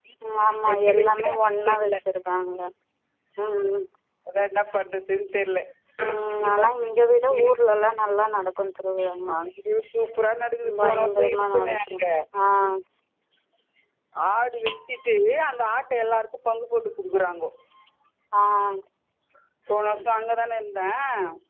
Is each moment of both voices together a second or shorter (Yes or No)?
No